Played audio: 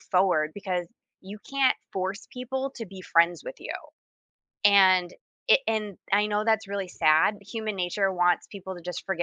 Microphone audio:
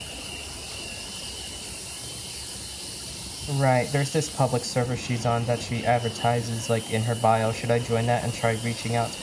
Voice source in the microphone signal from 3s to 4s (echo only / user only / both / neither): user only